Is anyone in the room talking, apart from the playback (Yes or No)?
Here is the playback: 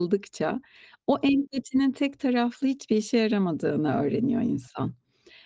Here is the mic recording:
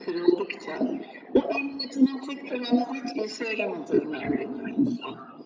No